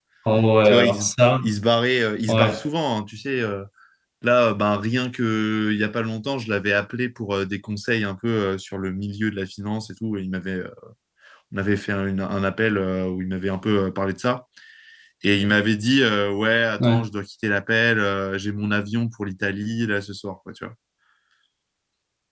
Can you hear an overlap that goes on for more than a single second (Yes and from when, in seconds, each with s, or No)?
No